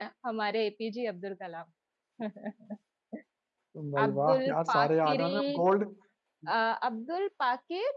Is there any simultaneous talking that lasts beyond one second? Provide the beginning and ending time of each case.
4.0-5.7

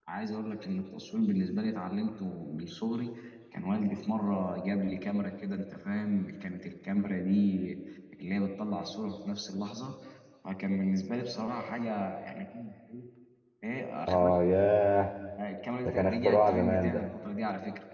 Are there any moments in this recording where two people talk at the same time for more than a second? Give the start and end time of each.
15.8-17.0

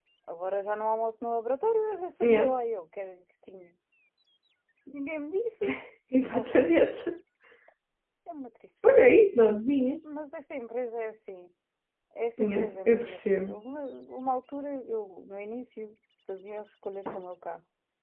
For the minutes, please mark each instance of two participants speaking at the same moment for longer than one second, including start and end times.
12.4-13.6

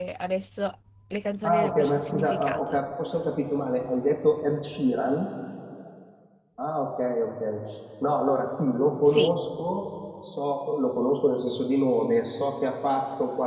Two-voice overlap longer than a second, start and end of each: 1.4-2.8

